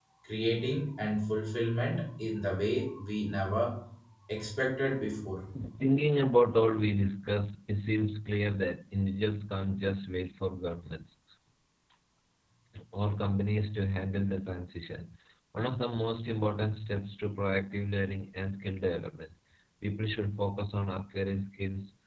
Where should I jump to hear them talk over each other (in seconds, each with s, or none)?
none